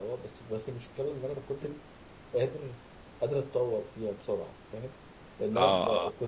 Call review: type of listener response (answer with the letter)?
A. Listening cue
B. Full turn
A